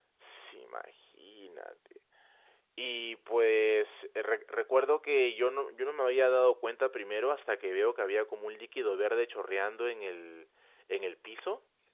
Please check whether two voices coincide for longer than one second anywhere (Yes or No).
No